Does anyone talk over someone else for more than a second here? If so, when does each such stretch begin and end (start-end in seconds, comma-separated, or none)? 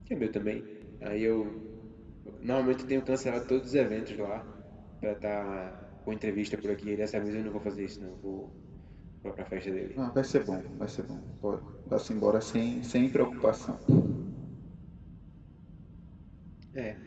none